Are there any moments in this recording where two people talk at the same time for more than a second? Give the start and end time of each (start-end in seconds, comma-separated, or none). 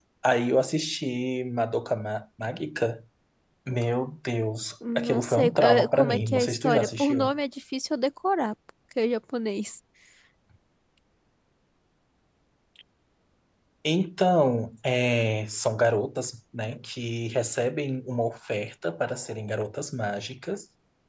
5.0-7.3